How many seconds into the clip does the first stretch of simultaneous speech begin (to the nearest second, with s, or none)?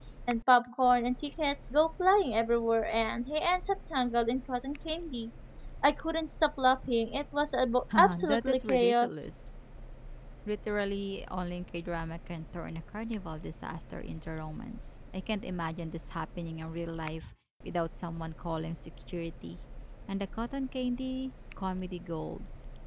8 s